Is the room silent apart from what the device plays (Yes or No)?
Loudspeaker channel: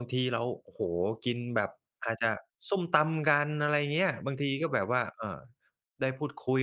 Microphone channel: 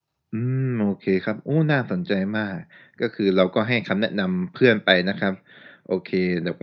No